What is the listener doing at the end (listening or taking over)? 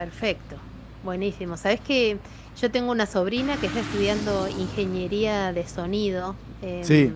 listening